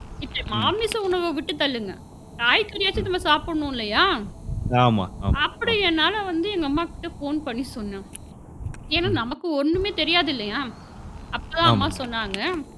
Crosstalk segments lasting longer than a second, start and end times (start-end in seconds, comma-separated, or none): none